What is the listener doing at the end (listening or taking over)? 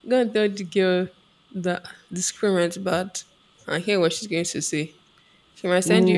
taking over